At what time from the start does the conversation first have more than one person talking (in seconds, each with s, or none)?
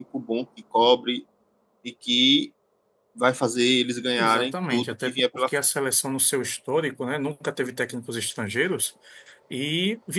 4.2 s